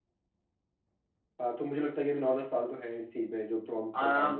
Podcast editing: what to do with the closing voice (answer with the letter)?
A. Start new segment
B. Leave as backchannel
A